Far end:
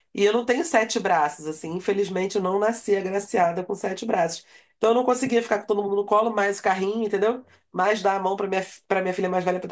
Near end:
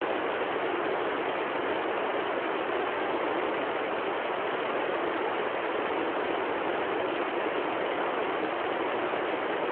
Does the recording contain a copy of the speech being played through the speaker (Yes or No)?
No